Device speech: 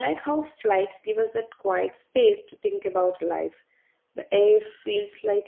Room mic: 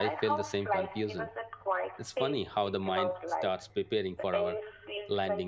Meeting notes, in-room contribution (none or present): present